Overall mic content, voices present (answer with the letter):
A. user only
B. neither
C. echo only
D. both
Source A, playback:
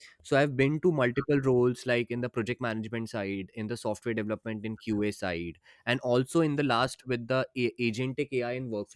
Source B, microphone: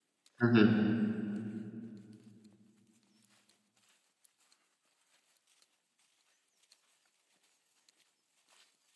A